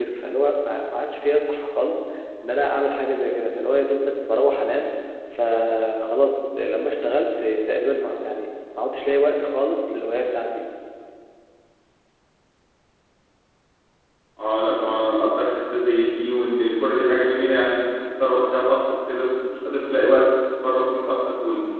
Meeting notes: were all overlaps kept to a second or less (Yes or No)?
Yes